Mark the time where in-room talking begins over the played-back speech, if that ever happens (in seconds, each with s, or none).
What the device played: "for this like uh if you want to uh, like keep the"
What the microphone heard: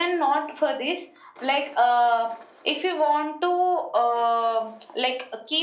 none